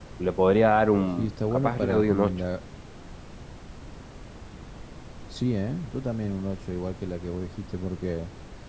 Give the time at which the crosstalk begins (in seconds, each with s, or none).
1.2 s